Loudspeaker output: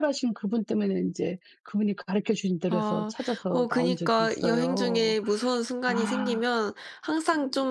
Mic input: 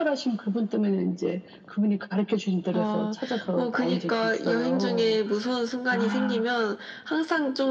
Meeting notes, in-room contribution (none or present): present